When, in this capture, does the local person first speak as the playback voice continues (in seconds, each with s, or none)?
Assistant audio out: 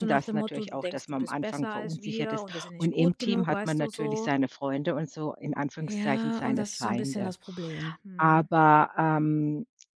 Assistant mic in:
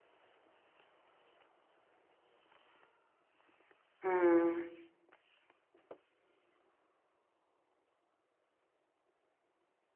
4.0 s